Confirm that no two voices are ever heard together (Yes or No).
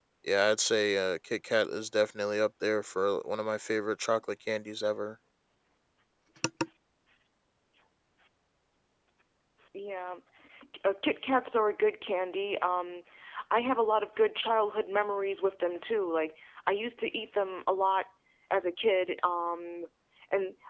Yes